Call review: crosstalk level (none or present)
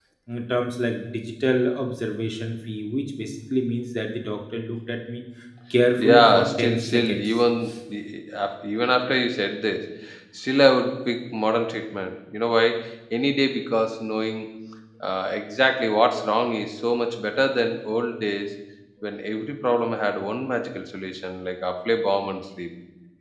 present